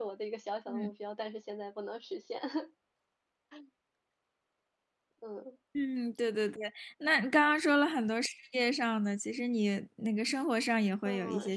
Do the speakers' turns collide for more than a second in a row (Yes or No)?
No